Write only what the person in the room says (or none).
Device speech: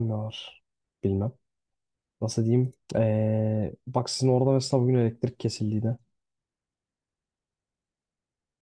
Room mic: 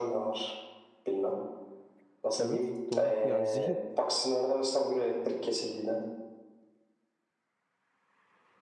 Evet, doğru. Yani zihin.